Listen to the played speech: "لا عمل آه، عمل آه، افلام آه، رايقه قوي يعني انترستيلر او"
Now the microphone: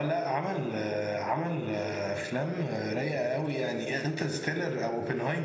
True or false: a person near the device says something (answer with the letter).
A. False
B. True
A